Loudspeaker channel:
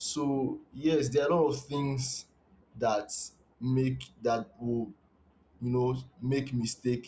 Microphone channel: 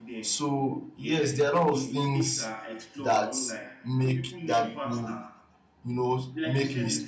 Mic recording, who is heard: both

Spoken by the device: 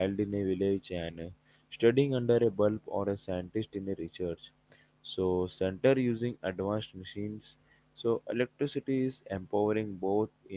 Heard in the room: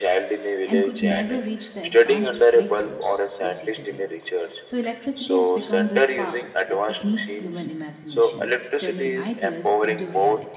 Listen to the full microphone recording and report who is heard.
both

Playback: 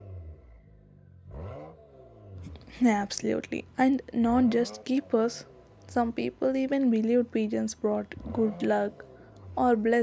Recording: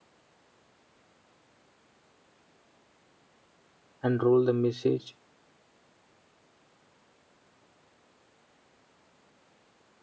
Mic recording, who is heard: user only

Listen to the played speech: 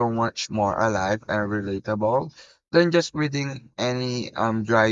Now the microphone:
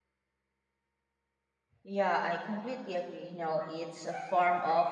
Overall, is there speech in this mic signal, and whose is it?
user only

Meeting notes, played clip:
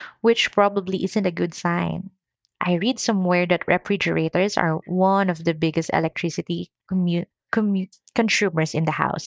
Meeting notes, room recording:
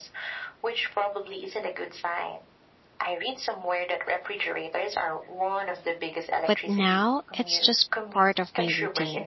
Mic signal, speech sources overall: both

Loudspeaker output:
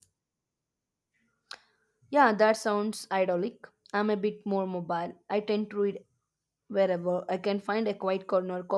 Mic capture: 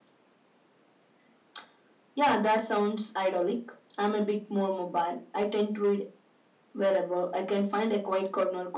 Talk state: echo only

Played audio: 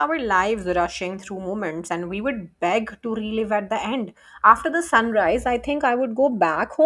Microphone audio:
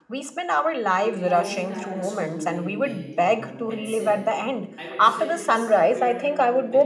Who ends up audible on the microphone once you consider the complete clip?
both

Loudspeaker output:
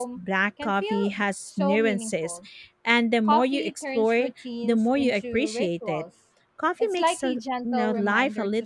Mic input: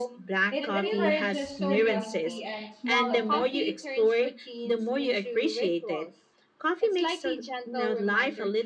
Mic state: both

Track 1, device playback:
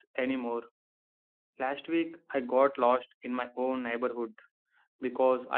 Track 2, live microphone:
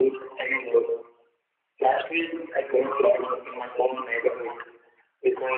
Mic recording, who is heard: echo only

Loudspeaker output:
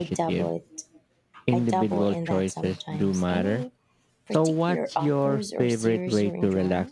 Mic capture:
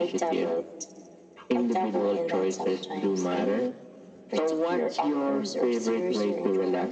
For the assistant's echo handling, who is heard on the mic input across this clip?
echo only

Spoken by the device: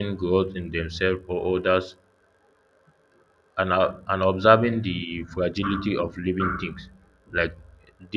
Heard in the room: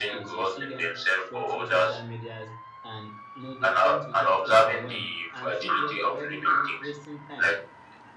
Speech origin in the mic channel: both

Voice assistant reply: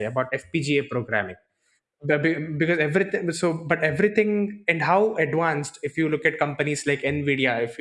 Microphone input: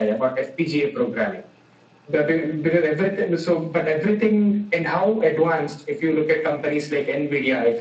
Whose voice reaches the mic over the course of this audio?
echo only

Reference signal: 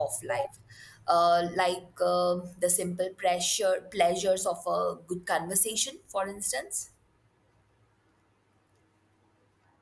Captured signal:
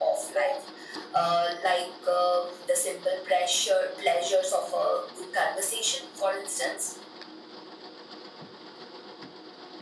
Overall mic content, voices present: echo only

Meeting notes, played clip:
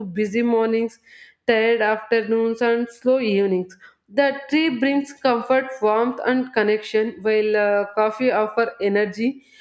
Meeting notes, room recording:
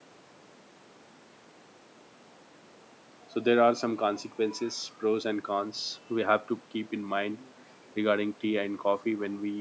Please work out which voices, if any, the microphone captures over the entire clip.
user only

